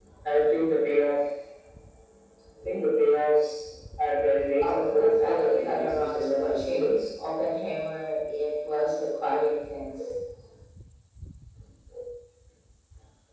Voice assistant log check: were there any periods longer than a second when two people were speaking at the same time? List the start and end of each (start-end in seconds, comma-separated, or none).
4.7-6.9